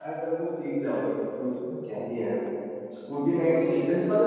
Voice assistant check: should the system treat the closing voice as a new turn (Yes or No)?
No